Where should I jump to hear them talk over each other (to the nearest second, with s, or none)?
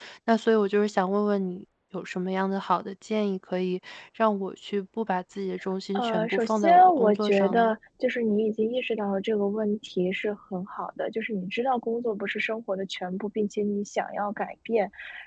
6 s